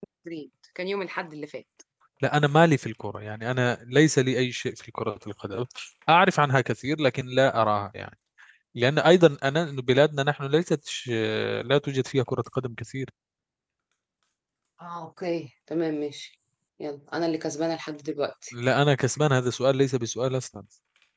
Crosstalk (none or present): none